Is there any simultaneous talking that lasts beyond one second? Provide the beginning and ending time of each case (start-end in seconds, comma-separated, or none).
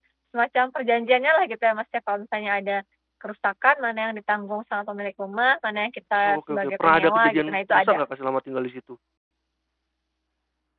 6.2-8.0